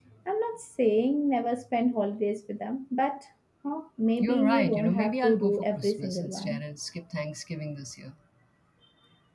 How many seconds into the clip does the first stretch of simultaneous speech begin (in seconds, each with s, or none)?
4.2 s